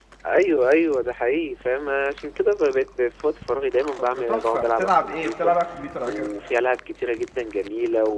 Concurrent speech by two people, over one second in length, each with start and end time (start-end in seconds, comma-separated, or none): 4.3-5.5